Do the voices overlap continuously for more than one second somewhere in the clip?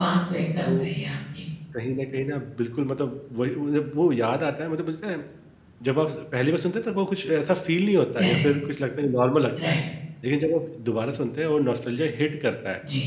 No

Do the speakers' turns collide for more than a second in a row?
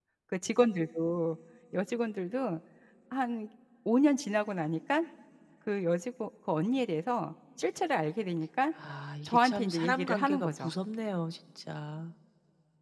Yes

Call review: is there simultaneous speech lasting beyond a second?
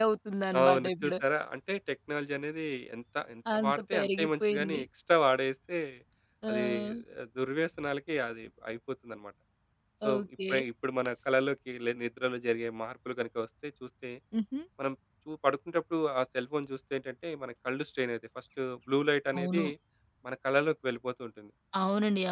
Yes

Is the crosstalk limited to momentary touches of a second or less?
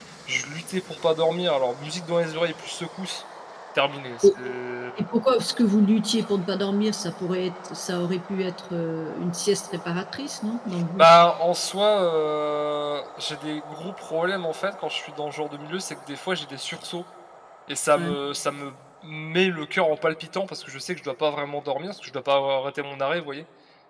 Yes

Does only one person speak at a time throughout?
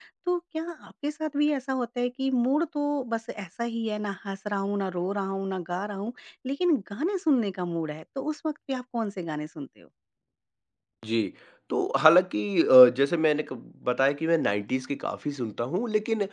Yes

